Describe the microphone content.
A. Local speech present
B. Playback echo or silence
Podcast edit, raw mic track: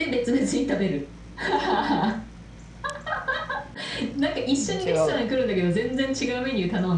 A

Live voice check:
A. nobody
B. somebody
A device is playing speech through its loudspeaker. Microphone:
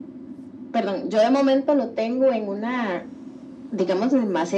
A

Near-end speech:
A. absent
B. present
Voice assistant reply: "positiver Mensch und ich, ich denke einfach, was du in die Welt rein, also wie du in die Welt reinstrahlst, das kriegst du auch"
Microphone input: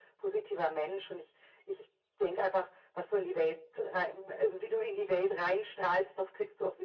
A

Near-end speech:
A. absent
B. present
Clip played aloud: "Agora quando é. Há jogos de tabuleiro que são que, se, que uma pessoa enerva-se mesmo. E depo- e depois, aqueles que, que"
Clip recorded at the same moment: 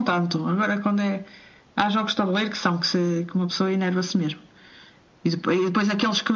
A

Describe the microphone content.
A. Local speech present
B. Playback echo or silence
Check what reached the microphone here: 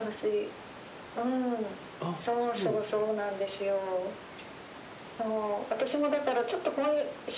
A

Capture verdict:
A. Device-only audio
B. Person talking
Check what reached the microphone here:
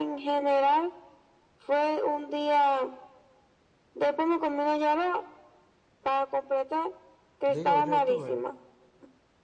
B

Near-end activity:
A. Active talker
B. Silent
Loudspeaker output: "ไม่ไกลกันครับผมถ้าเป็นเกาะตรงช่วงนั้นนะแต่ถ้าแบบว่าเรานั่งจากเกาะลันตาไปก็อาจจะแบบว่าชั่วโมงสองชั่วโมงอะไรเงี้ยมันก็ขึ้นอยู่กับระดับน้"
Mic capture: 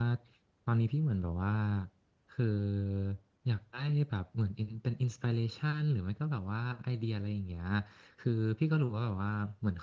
A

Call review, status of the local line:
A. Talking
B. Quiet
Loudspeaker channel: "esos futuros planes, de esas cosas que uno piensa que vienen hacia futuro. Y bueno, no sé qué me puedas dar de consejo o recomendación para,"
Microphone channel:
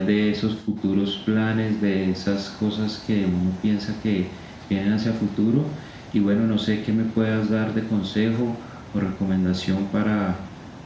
B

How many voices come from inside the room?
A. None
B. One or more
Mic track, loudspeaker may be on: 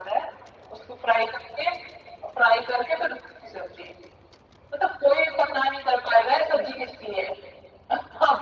A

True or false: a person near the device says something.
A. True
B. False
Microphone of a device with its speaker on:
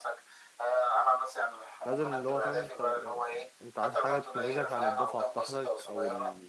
A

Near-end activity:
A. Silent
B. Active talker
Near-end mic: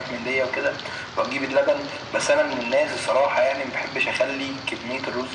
A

